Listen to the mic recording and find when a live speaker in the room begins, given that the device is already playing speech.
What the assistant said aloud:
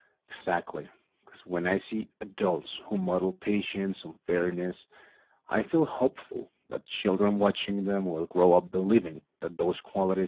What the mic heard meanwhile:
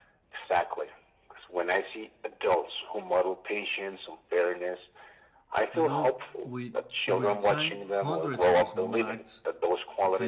5.7 s

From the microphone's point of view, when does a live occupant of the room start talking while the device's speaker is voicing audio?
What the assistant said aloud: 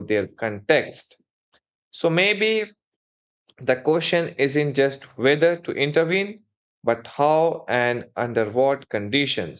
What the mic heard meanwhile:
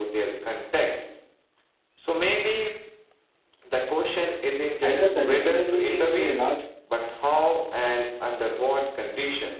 4.8 s

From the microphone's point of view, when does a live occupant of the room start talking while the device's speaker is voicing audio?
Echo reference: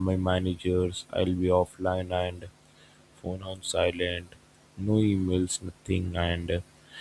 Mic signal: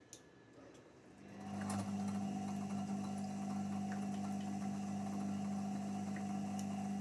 none

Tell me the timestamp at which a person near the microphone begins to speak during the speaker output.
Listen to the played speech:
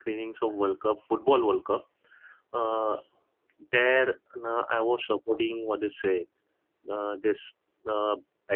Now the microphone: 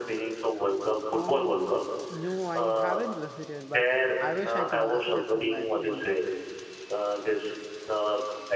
1.1 s

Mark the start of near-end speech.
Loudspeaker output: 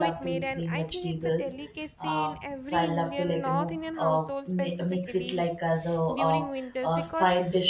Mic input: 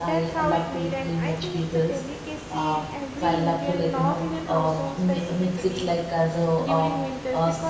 none

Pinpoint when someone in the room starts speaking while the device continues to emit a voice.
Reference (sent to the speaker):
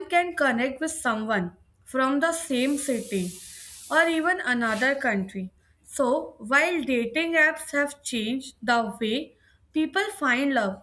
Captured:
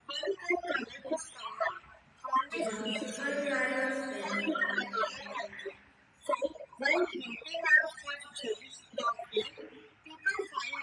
2.5 s

